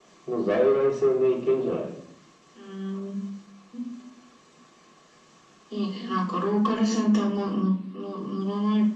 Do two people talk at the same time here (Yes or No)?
No